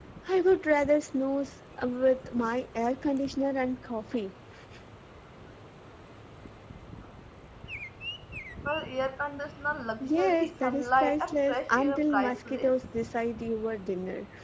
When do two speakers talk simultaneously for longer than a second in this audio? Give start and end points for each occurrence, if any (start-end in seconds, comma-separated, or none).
10.0-12.7